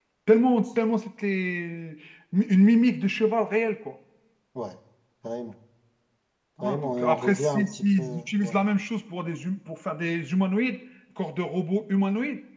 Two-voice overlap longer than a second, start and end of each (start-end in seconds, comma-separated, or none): 6.6-8.6